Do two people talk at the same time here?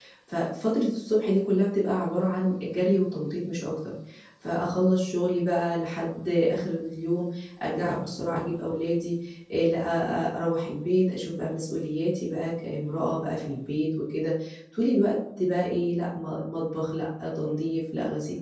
No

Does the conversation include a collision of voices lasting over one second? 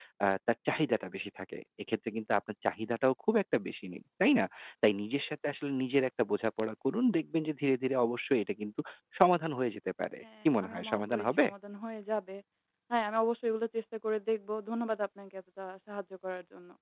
Yes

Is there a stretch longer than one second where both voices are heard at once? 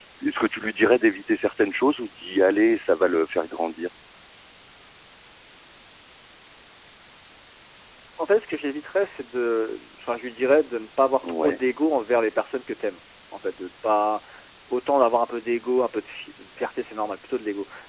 No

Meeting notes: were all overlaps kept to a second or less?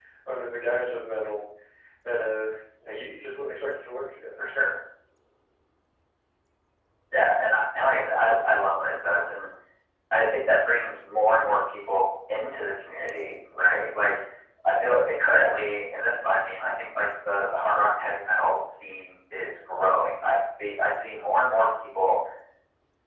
Yes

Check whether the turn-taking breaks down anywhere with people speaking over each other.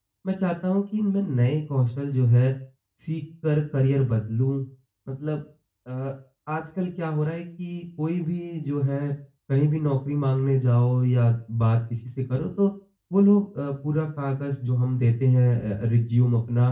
No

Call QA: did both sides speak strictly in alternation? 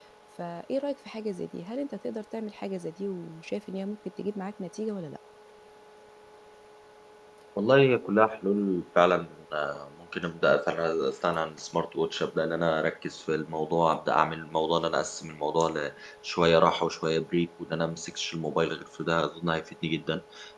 Yes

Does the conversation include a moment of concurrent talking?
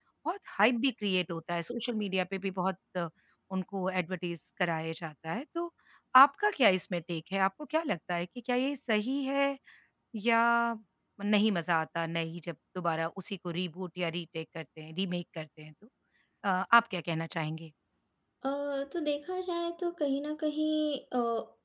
No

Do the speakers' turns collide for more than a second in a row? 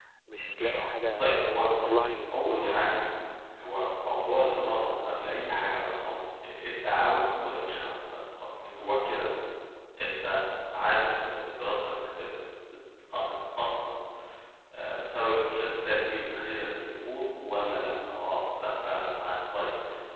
Yes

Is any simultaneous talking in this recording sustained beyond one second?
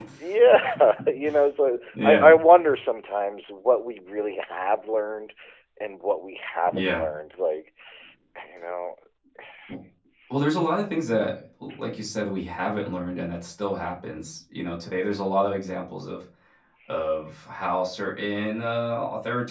No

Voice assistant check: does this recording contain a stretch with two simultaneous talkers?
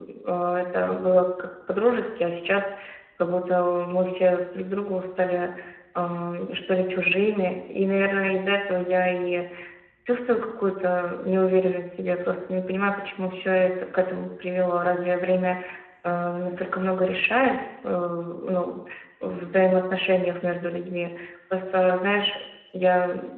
No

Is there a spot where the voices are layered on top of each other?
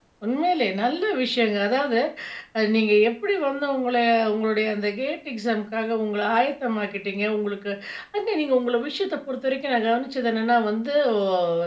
No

